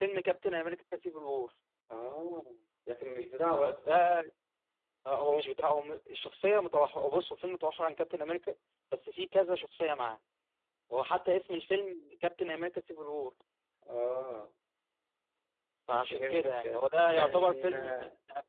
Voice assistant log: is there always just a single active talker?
No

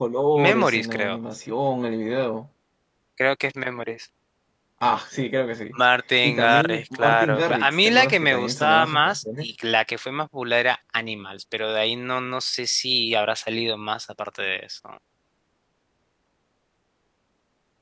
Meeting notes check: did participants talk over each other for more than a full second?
Yes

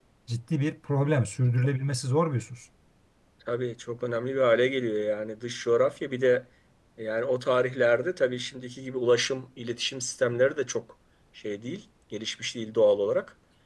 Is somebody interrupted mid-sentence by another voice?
No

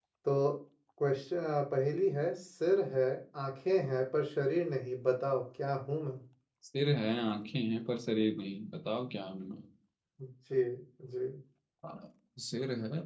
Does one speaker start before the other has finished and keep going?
No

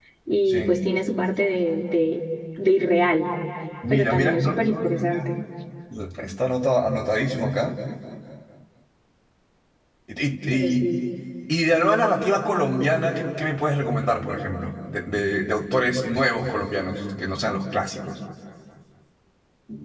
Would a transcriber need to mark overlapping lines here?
Yes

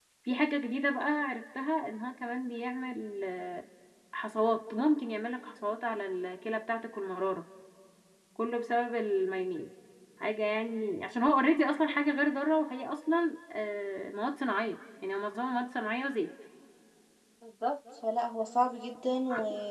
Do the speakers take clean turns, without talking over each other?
Yes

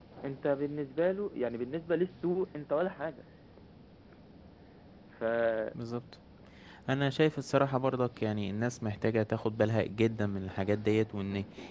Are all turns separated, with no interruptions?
Yes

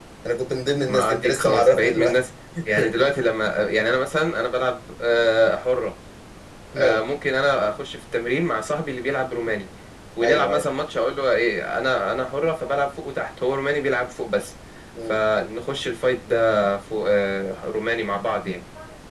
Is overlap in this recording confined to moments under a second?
No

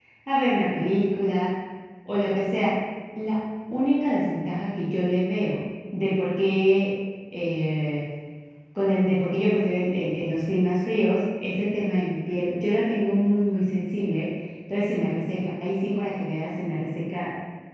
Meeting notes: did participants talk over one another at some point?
No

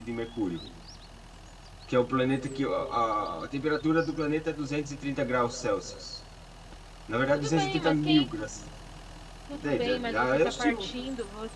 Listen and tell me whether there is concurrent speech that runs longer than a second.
Yes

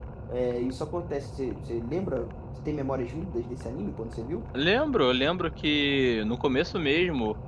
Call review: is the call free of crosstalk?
Yes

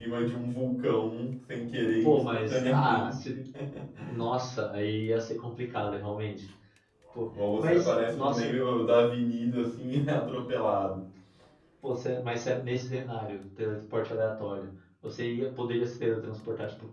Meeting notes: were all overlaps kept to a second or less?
No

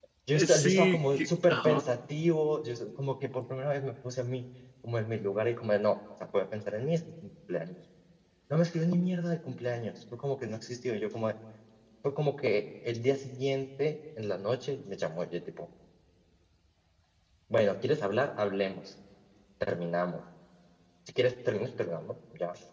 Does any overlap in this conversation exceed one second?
Yes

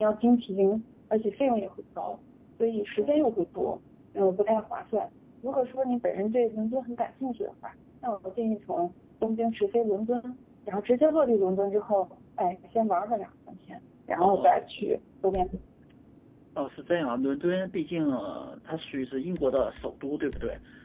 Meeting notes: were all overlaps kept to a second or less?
Yes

